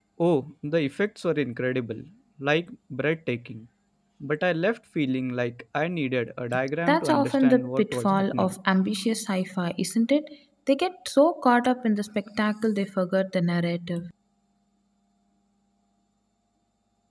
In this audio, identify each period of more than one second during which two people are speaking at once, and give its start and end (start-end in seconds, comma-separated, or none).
6.9-8.5